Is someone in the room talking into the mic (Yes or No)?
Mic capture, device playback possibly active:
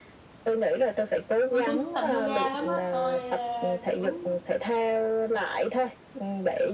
Yes